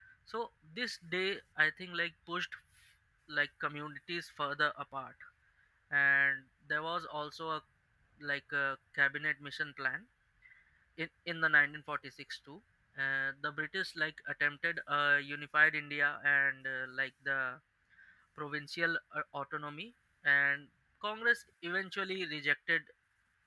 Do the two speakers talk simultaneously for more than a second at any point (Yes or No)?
No